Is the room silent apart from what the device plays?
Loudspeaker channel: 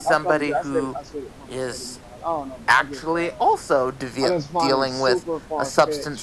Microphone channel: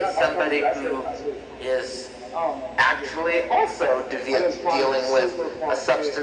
Yes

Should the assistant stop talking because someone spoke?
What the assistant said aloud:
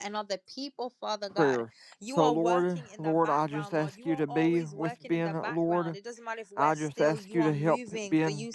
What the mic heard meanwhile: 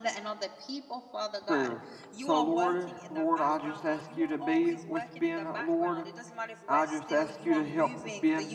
No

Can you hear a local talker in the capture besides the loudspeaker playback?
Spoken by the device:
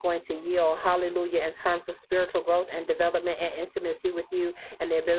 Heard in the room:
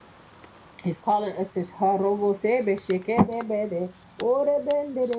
Yes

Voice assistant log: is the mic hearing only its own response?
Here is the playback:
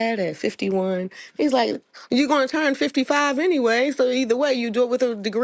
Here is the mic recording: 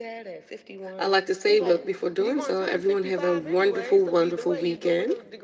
No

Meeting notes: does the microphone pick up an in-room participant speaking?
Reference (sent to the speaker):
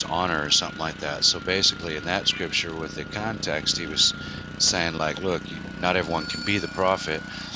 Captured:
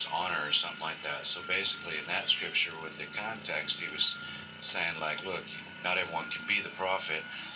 No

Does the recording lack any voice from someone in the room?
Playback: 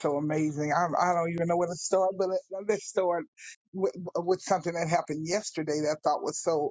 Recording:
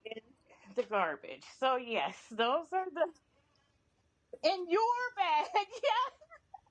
No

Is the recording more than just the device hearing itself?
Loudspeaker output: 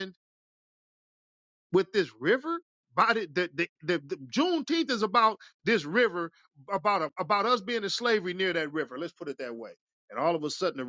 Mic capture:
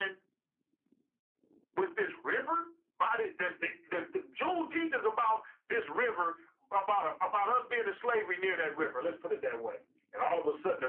No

